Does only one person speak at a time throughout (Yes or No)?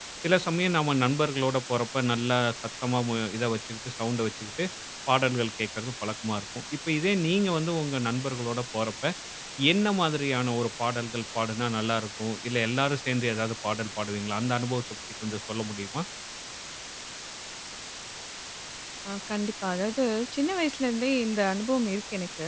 Yes